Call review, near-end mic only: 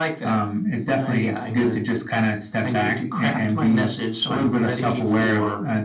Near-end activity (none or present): none